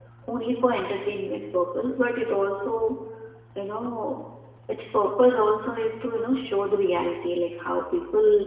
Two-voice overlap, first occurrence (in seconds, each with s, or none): none